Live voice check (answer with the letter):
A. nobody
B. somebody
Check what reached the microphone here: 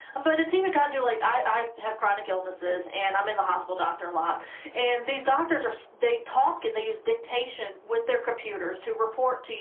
A